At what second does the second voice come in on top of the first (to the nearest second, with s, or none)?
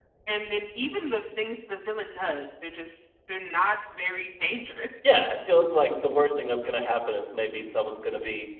none